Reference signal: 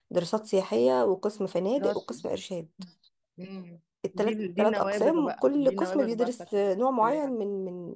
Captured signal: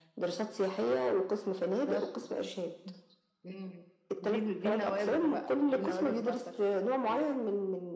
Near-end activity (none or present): none